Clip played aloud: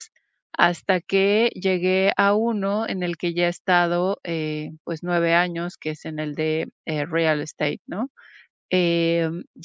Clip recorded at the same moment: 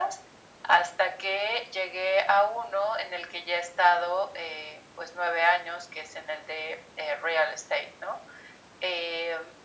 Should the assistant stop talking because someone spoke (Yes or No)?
No